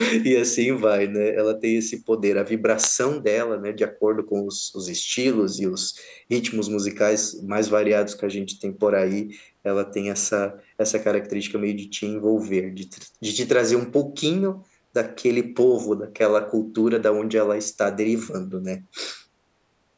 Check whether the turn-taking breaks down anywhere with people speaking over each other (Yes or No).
No